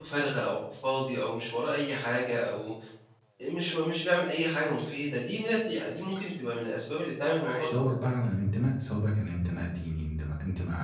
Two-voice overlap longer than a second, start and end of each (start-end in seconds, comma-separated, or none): none